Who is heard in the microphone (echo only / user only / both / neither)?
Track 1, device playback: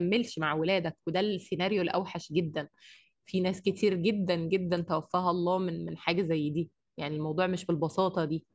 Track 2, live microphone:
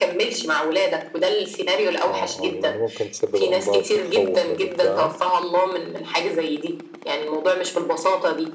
both